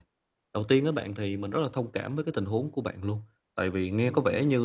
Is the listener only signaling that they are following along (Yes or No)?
Yes